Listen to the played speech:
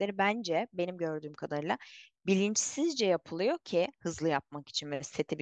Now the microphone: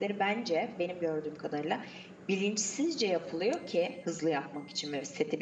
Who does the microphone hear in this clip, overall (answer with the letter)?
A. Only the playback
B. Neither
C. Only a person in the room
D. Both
A